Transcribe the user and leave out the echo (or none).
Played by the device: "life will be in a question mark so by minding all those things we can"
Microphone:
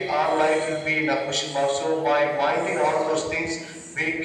none